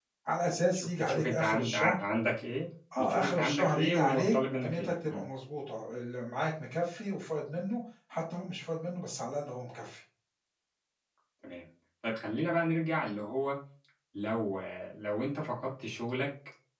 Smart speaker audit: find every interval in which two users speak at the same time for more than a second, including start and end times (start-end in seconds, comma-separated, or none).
0.7-1.9, 3.0-5.2